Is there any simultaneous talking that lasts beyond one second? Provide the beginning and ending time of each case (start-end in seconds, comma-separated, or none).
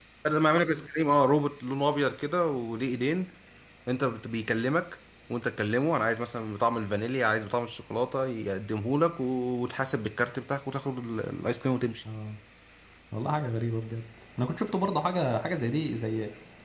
none